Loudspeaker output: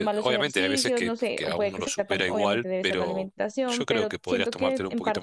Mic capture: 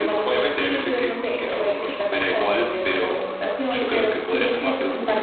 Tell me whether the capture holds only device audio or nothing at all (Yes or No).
Yes